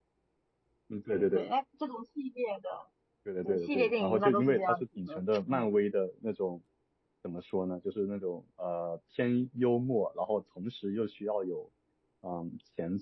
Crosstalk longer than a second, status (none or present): present